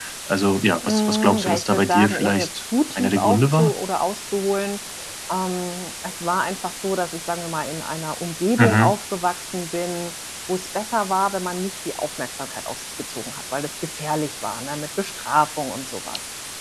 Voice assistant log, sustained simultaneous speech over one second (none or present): present